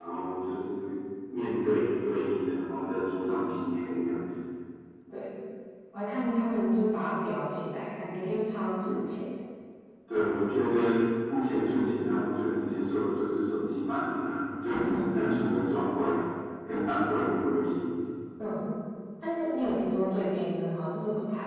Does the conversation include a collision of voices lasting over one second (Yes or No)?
No